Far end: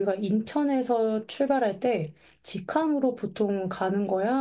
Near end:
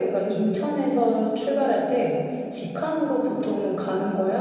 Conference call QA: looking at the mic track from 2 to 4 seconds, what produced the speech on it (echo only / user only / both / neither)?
echo only